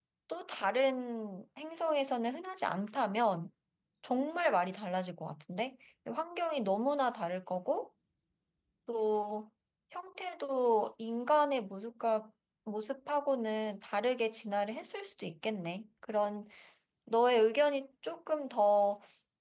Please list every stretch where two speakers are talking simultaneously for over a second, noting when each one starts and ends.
none

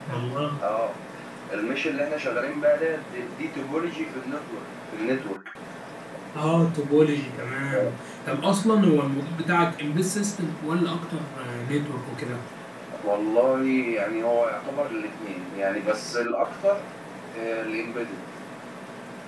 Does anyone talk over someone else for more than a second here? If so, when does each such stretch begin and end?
none

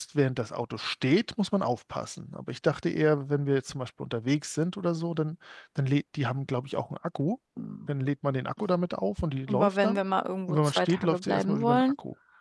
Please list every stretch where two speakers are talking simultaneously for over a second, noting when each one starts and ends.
10.5-11.8

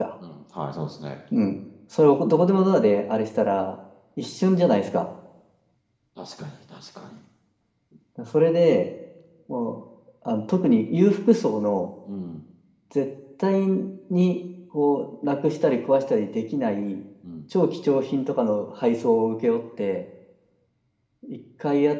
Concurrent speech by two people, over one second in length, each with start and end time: none

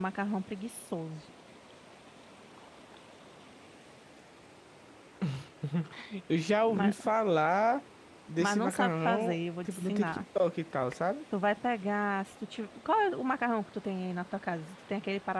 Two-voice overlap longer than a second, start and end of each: 8.4-10.2

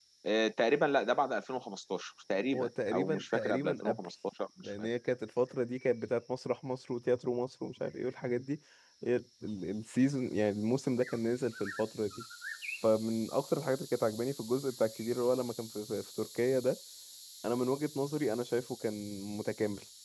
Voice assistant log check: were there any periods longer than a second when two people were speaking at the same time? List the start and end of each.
2.5-4.1

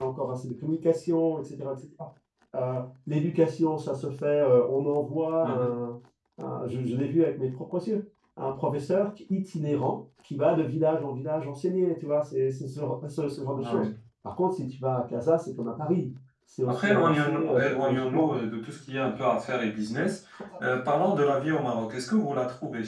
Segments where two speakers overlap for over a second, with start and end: 16.7-18.4

